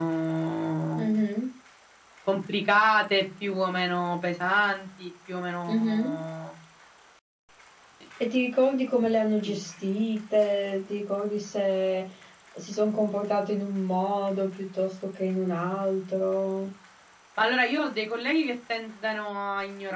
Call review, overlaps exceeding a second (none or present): none